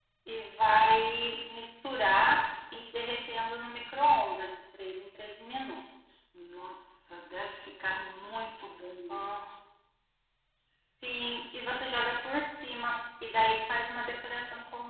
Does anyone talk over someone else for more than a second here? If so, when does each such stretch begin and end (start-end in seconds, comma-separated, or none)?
none